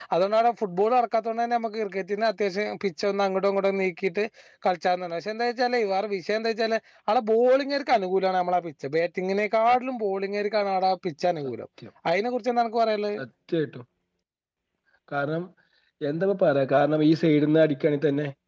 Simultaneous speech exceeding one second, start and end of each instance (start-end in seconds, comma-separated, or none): none